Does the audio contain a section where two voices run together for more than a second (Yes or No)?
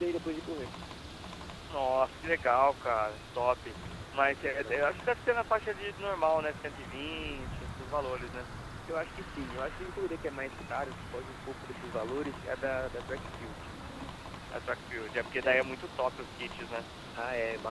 No